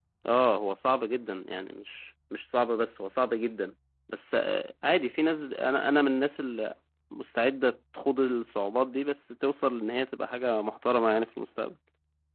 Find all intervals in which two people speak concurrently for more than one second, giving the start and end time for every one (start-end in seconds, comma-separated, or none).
none